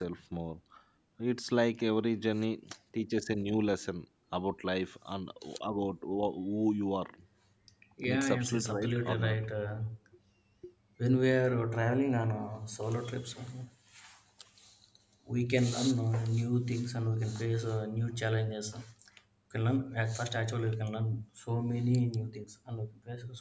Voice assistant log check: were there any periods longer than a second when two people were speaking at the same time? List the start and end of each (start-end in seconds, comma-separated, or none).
8.1-9.4